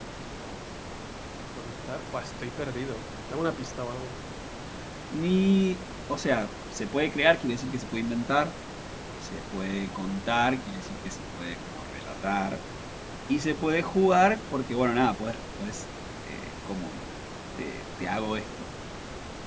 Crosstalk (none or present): none